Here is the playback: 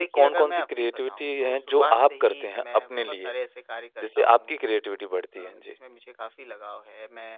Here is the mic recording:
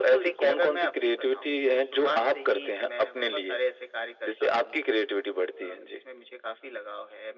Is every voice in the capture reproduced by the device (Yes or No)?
Yes